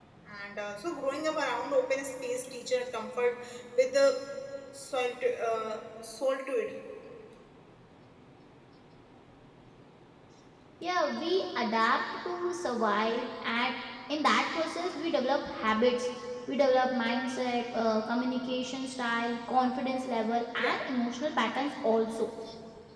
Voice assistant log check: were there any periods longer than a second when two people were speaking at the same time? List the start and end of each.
none

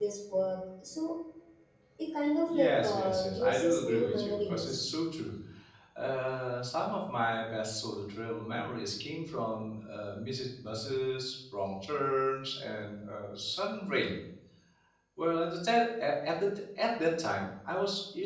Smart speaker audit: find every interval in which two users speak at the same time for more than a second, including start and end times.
2.5-4.8

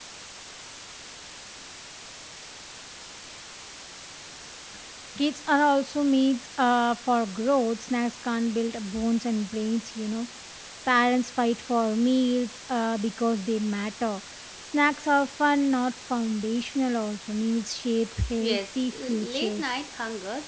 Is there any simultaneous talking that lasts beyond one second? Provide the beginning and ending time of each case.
18.4-19.6

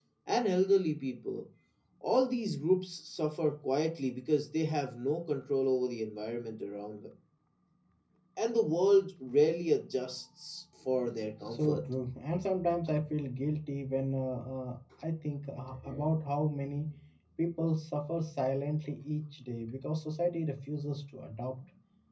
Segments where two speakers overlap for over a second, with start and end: none

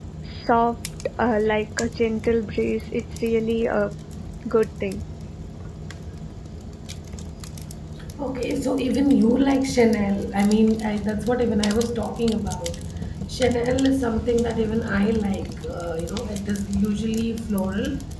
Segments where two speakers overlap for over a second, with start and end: none

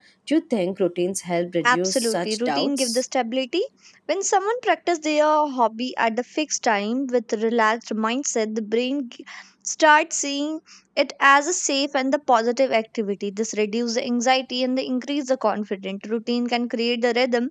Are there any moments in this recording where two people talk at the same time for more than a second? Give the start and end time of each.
1.7-3.0

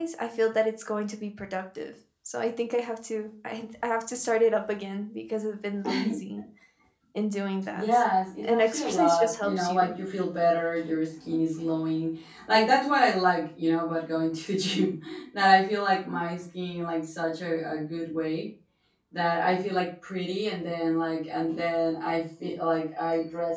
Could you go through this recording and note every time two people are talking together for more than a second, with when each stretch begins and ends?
8.4-9.9

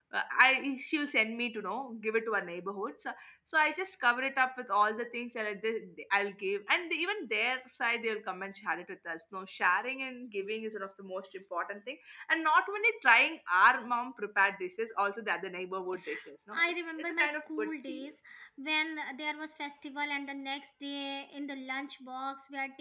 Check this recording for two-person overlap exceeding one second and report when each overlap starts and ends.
16.5-18.1

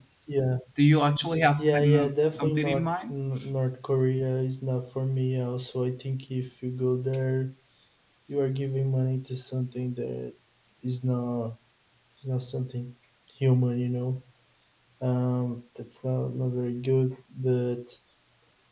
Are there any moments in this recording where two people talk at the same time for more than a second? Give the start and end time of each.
1.6-3.1

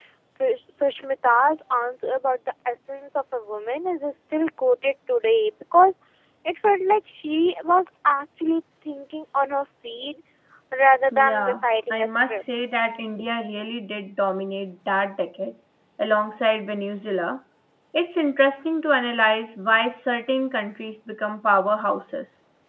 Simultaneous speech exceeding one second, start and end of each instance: 11.1-12.4

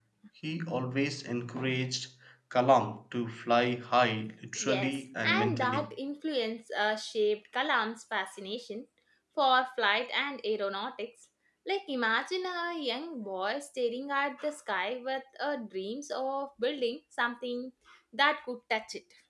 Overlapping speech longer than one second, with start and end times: 4.6-5.9

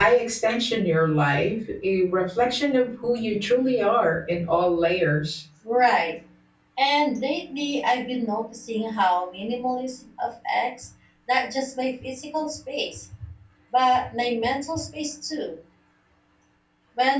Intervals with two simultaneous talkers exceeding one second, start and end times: none

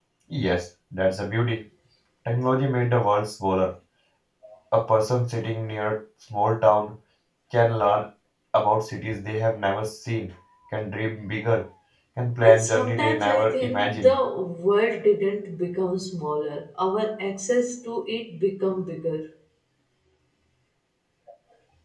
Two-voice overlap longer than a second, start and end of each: 12.4-14.1

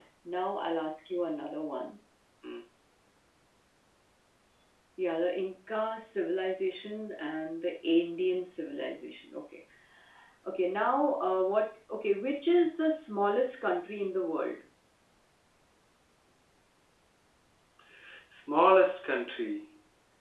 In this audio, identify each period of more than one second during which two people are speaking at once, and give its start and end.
none

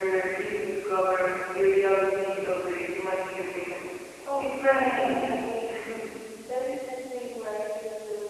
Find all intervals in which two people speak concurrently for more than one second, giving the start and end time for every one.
4.4-5.7

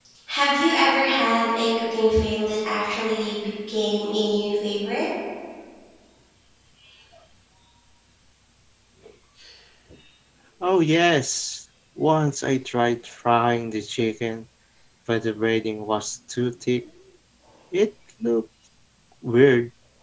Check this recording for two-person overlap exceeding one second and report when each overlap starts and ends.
none

